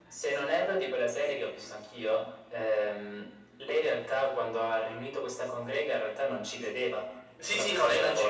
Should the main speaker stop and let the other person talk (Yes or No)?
Yes